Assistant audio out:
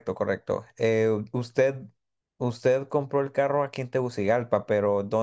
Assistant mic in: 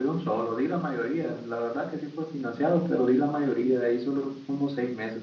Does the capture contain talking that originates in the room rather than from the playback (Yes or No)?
Yes